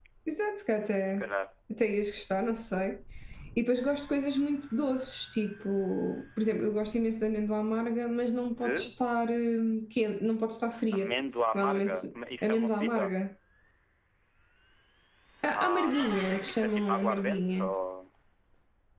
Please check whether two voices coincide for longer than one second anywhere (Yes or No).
Yes